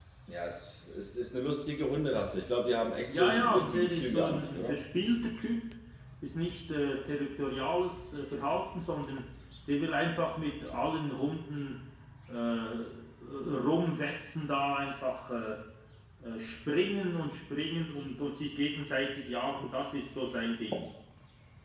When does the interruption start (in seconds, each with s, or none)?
3.0 s